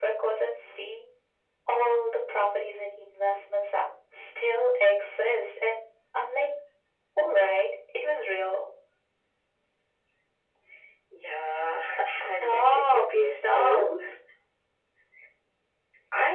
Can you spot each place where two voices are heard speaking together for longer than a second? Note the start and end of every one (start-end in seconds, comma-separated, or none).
12.2-13.8